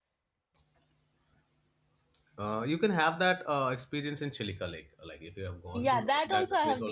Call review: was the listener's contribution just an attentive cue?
No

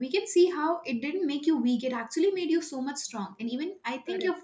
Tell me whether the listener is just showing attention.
Yes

